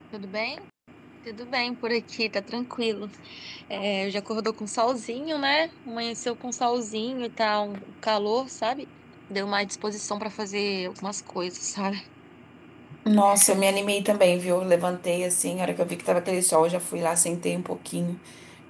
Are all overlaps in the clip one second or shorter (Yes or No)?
Yes